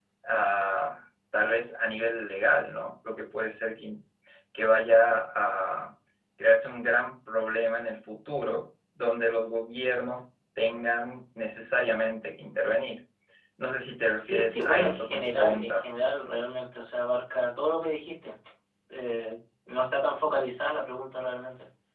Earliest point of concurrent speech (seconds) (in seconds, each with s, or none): 14.1 s